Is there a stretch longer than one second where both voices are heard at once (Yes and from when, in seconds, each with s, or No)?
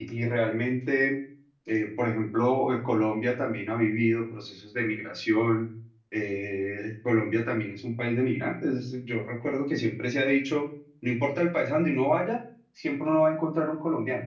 No